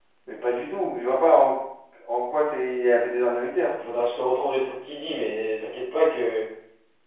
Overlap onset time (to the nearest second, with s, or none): none